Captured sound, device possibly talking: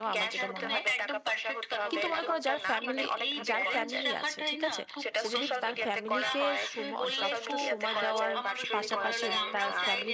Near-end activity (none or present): present